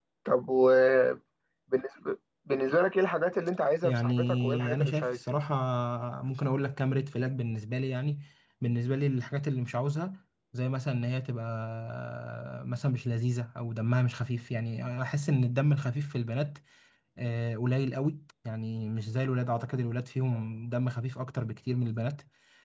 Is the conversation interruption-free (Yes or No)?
No